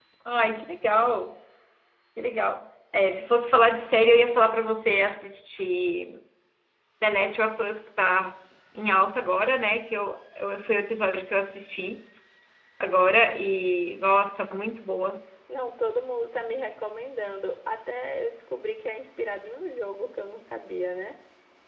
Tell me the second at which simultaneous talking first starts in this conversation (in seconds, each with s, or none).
none